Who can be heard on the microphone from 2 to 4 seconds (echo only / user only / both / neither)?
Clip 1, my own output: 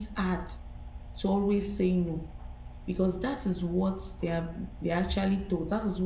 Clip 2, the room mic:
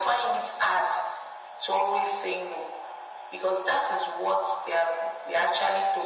echo only